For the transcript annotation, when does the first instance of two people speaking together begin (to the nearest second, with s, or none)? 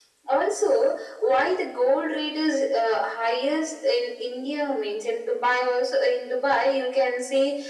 none